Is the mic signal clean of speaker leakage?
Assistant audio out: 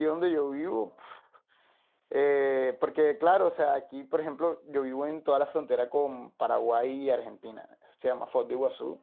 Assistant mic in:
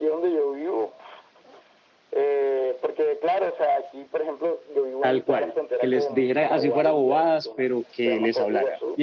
No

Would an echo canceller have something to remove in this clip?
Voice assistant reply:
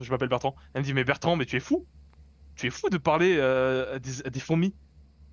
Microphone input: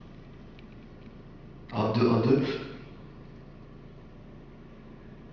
No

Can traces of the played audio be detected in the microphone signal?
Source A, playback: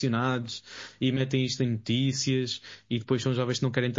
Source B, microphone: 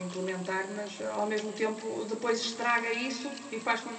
No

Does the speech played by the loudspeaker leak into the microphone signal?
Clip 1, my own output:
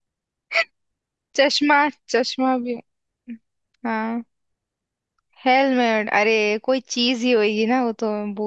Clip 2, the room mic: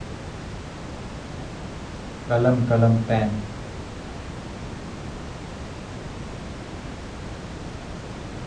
No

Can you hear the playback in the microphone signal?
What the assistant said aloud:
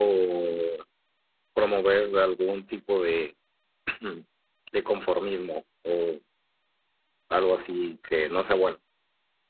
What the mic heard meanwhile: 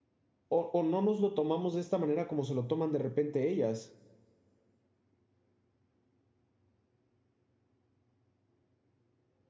No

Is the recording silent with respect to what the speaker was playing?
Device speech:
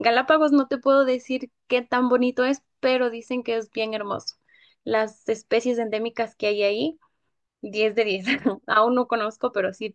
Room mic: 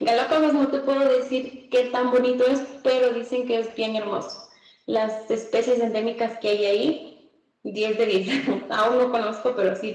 No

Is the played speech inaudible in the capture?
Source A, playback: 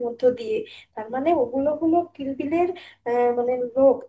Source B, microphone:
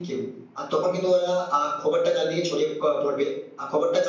Yes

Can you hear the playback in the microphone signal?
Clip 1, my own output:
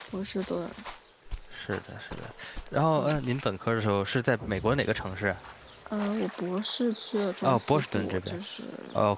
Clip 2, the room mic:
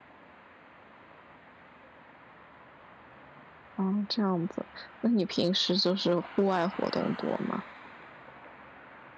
No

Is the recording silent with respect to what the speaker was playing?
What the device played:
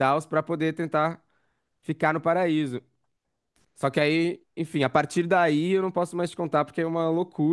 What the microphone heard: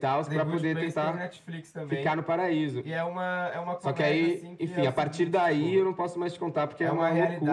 No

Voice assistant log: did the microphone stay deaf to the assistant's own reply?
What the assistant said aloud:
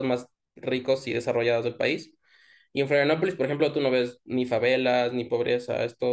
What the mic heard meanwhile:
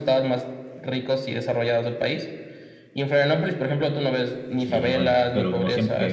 No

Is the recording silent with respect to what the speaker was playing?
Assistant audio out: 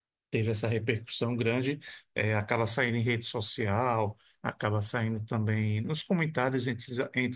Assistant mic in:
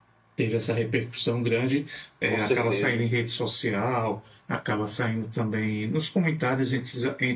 No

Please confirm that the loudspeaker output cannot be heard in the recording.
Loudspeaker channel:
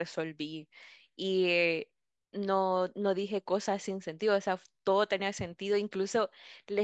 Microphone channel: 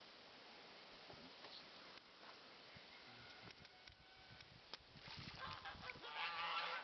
Yes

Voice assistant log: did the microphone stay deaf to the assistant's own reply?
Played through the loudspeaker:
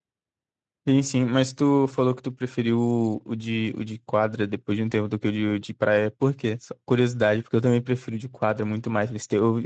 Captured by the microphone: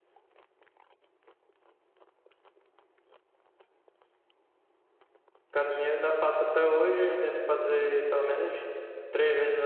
Yes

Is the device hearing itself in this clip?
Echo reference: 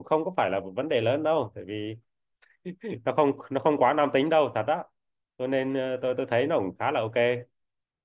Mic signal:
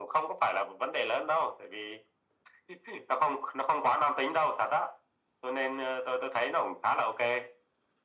Yes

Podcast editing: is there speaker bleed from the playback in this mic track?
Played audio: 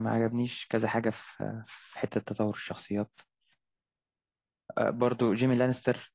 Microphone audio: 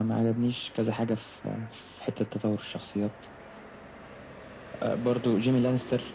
Yes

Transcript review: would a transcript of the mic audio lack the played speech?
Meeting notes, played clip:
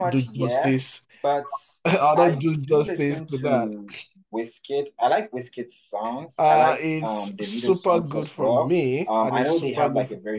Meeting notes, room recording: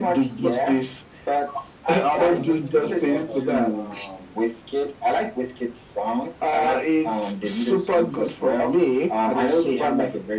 No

